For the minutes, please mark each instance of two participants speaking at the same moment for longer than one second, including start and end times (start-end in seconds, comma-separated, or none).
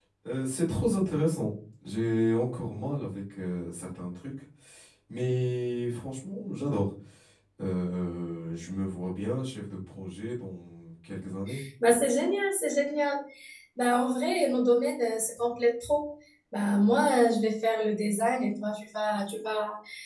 none